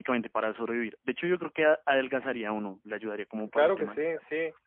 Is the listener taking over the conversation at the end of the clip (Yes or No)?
Yes